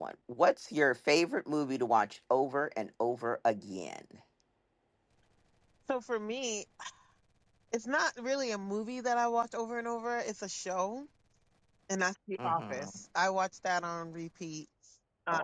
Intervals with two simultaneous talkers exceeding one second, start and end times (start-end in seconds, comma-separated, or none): none